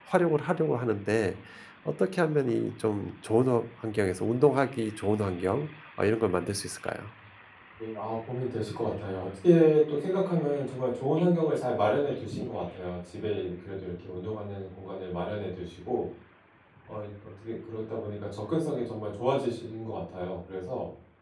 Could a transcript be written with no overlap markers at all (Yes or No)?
Yes